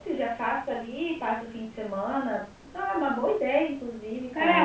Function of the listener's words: taking over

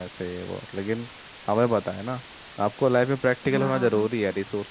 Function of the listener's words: listening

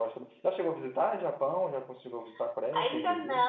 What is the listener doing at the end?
taking over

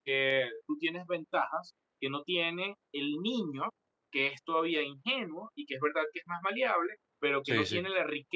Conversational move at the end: listening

